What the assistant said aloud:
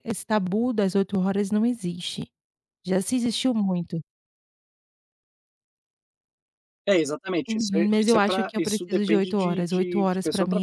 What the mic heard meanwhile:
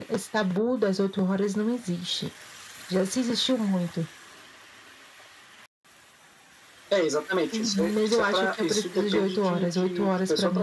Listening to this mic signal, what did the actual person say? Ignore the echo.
none

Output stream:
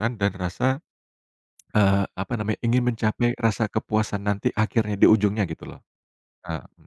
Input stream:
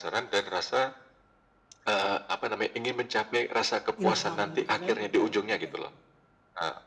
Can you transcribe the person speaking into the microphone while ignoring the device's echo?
ilham gitu kan. Oke oke oke.

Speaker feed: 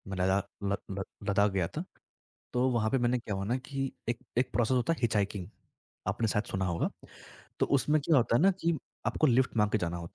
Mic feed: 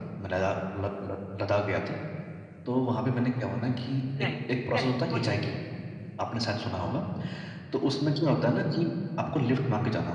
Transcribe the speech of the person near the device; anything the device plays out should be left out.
राइट, करेक्ट बोलिए। हुँ,

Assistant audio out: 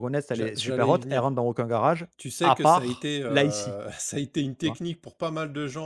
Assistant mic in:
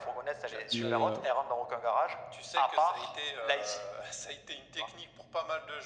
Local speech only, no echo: Mais, heu,

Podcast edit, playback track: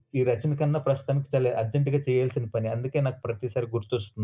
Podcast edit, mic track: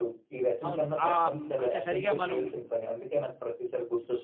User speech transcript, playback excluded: అవును. ఆహ్, హ్మ్, అంటే సరిగ్గా మనం

